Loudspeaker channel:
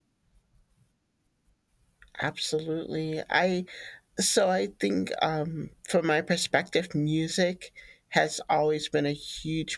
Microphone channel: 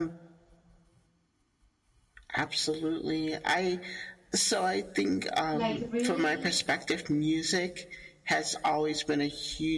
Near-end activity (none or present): present